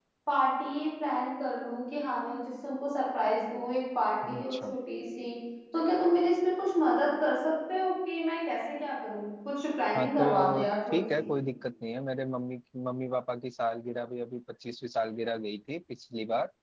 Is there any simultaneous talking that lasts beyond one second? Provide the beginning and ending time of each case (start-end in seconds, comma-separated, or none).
10.0-11.3